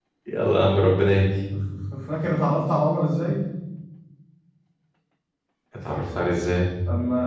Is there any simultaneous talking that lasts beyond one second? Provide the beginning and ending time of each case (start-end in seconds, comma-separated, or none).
none